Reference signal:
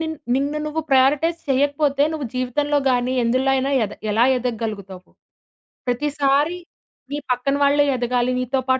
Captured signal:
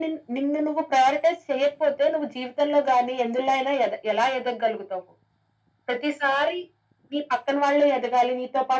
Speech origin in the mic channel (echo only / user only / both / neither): echo only